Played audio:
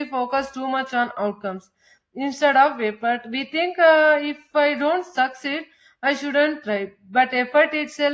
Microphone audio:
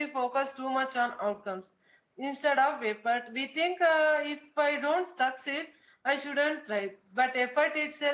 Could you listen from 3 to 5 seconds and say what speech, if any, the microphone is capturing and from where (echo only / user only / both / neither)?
echo only